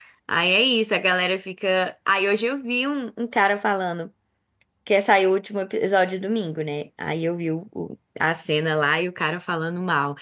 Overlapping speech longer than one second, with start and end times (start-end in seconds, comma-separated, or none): none